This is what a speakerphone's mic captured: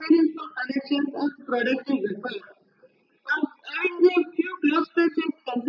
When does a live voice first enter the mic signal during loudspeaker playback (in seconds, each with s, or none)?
none